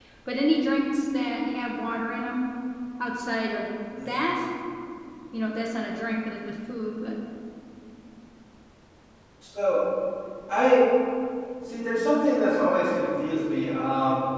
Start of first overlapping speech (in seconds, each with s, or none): none